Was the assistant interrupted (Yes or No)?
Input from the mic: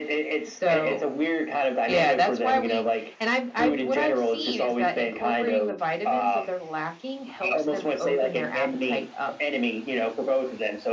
No